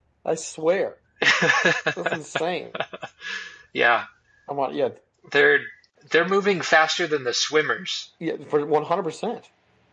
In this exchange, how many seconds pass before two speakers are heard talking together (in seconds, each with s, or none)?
none